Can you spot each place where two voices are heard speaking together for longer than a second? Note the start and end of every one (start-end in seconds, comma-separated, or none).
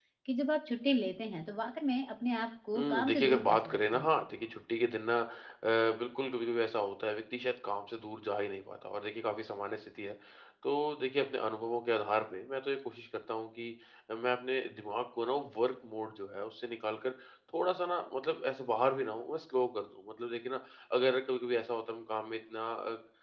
2.8-4.1